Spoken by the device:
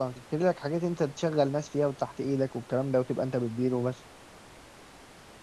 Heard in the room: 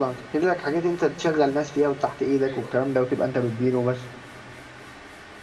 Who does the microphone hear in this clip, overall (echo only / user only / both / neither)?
both